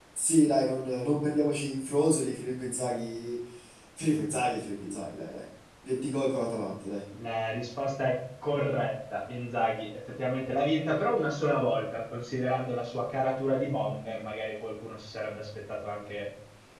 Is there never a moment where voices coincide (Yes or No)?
Yes